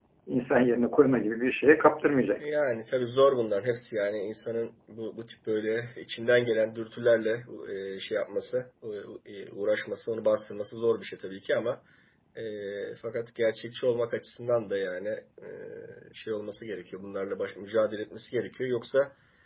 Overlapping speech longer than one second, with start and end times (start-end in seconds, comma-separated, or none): none